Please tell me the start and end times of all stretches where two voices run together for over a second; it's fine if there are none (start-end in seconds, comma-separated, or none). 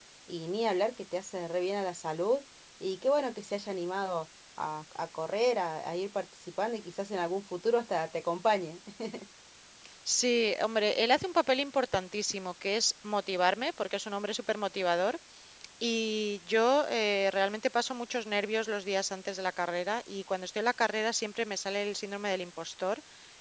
none